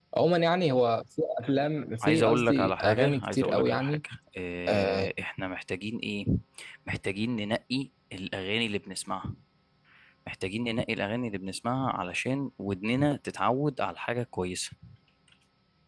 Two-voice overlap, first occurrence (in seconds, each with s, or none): 2.0 s